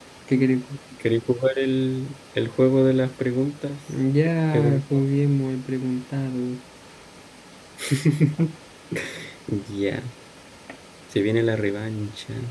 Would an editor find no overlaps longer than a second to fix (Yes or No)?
Yes